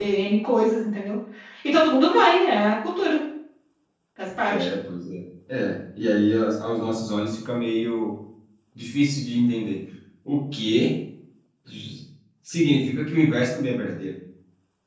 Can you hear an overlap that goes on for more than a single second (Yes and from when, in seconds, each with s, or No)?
No